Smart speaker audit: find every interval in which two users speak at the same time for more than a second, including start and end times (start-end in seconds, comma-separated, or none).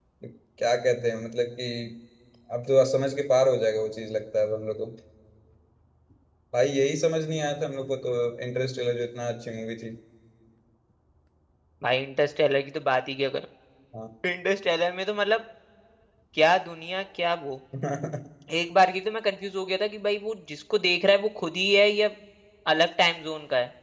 none